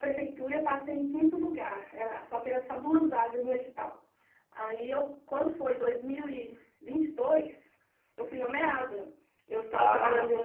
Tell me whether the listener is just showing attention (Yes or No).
Yes